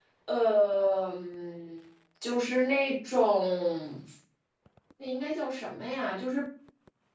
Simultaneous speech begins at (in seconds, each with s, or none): none